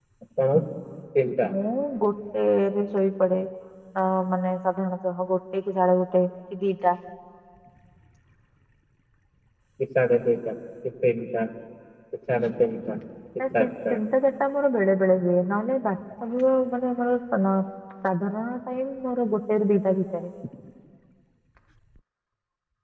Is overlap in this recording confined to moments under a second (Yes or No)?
Yes